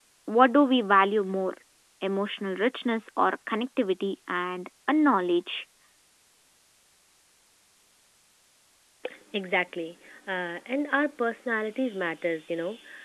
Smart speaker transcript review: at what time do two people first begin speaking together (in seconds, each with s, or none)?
none